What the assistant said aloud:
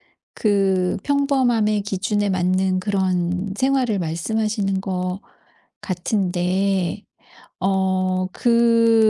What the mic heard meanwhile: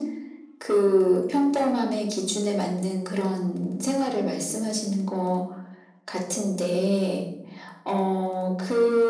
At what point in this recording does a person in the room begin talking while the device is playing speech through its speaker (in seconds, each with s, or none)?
none